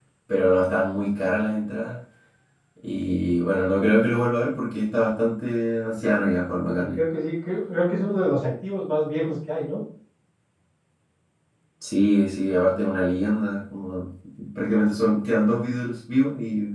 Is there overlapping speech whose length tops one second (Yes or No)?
No